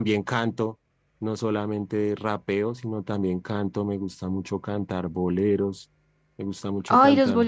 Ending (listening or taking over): taking over